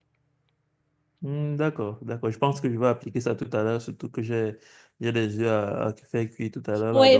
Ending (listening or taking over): taking over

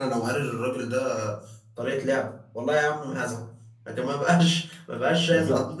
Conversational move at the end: listening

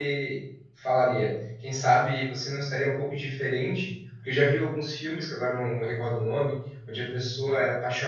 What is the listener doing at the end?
listening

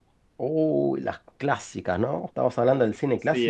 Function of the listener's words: taking over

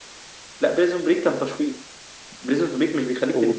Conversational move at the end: listening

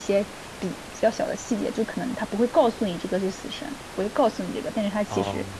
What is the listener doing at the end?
taking over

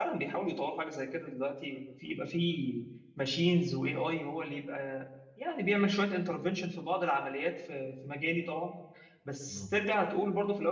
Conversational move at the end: listening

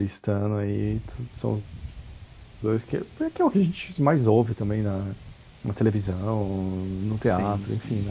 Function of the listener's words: listening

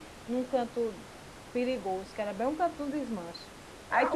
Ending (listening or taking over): taking over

